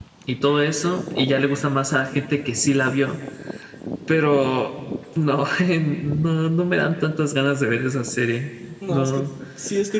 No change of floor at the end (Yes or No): No